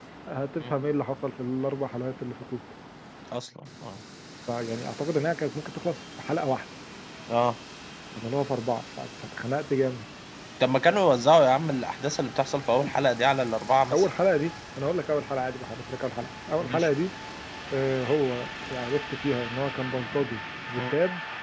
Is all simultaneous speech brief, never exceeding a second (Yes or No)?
Yes